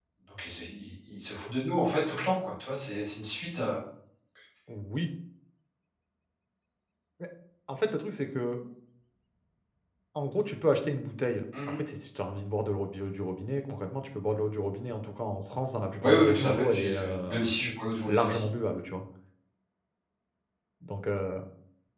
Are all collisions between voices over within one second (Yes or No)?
No